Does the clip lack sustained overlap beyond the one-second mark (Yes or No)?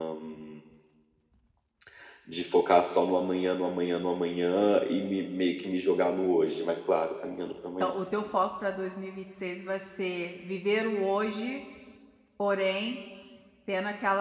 Yes